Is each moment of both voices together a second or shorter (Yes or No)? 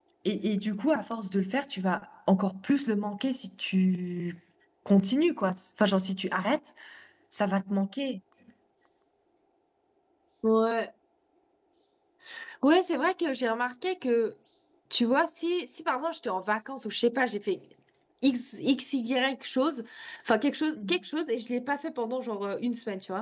Yes